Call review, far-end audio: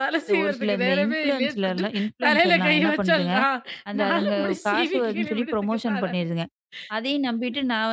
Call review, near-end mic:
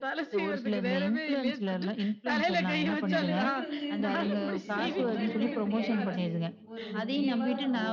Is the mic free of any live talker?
No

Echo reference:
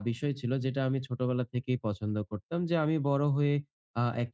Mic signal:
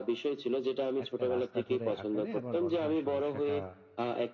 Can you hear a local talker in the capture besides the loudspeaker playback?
Yes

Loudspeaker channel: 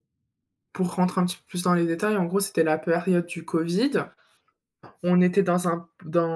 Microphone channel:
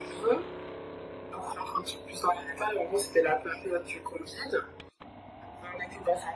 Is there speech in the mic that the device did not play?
No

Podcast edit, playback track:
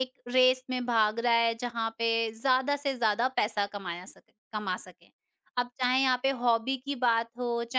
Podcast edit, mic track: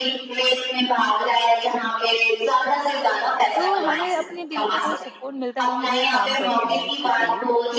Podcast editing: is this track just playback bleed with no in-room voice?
No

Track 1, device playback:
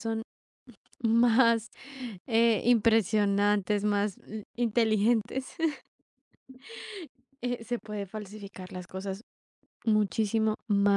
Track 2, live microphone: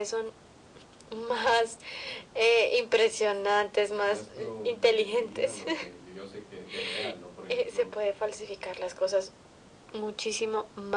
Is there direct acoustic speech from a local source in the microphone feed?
Yes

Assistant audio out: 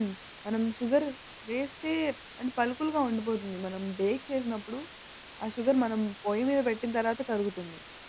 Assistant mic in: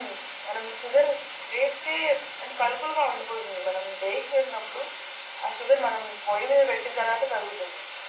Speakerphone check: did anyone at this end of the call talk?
No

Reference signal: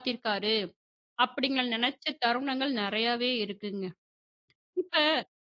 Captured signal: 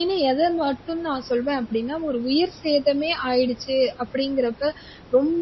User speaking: Yes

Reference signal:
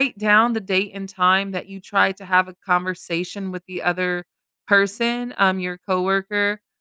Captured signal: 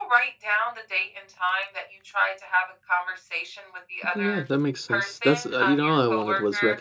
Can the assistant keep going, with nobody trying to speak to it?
No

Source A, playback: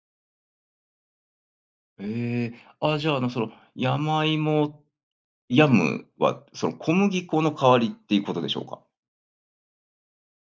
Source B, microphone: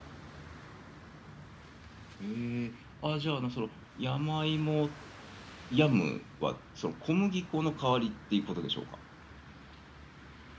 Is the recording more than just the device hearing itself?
No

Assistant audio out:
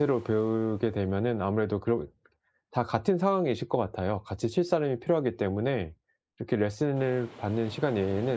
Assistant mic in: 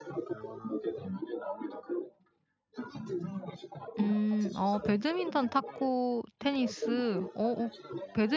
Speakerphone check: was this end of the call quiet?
No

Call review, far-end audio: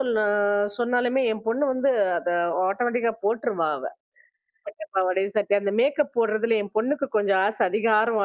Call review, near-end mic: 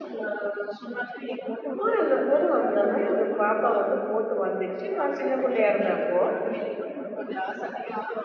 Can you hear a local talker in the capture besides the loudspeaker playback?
Yes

